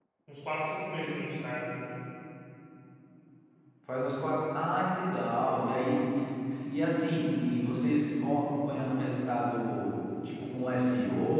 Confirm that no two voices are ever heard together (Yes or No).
Yes